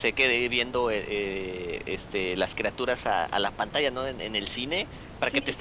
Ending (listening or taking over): listening